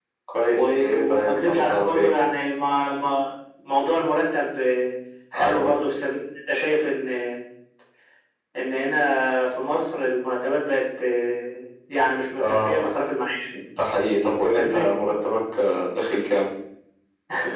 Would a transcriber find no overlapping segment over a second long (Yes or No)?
No